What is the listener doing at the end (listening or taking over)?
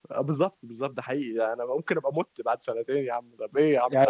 taking over